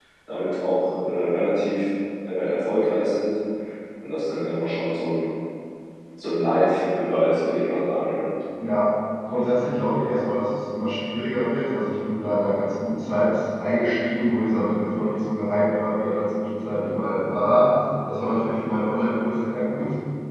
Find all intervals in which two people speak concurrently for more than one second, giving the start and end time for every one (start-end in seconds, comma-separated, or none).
none